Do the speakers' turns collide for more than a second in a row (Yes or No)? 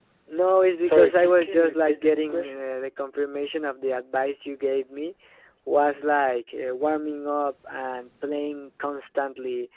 Yes